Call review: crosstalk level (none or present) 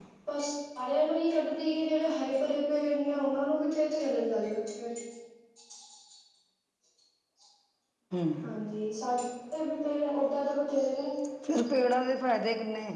none